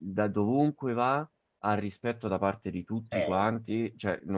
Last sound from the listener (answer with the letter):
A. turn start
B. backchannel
B